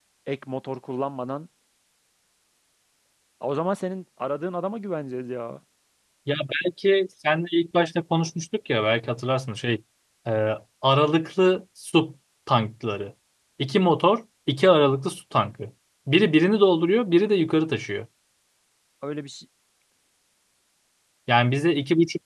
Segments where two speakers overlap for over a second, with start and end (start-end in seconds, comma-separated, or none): none